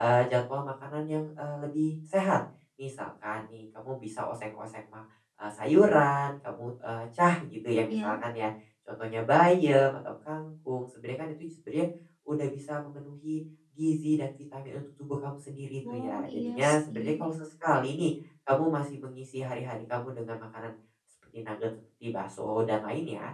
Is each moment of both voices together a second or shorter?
No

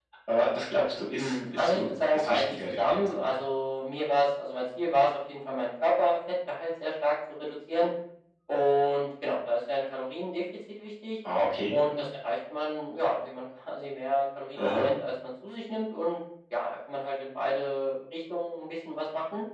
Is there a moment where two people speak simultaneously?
Yes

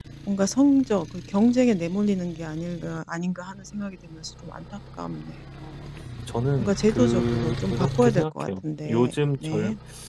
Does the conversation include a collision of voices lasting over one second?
Yes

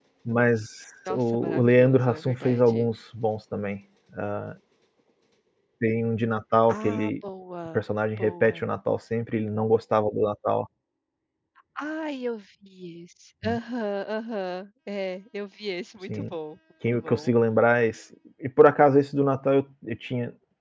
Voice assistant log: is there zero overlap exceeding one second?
No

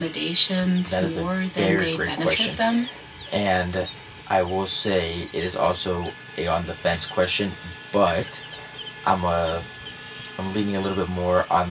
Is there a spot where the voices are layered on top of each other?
Yes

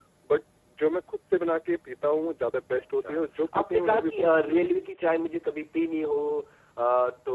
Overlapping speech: Yes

